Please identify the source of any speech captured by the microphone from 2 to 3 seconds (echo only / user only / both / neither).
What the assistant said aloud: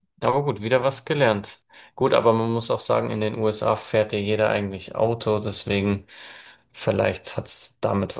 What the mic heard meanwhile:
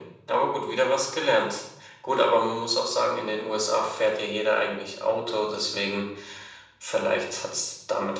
echo only